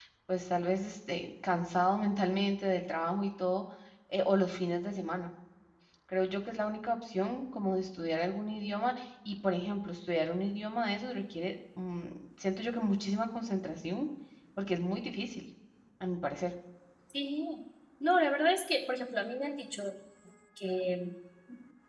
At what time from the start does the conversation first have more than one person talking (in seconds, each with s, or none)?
none